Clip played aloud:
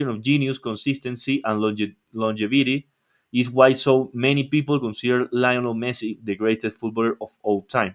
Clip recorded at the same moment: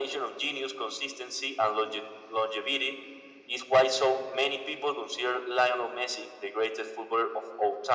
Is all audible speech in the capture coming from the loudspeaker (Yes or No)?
Yes